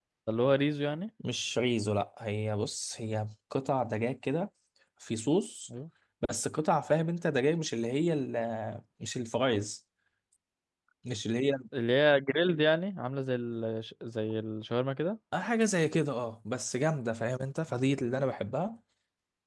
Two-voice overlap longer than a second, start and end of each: none

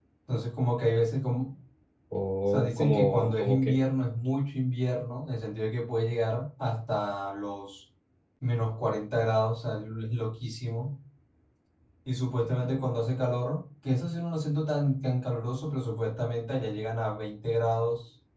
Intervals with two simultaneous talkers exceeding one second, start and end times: 2.5-3.8

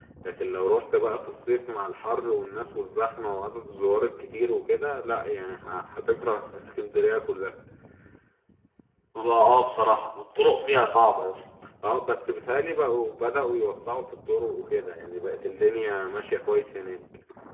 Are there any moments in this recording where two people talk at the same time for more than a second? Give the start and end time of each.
none

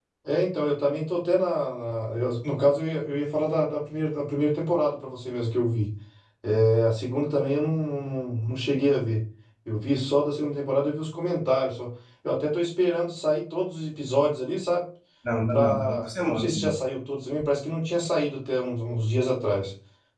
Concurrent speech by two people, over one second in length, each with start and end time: 15.5-16.7

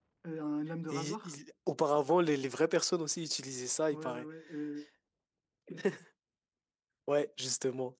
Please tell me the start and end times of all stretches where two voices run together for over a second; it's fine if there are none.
none

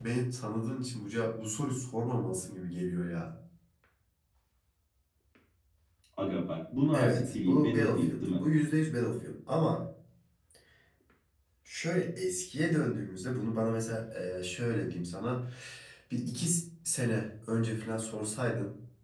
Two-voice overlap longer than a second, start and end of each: 6.9-8.4

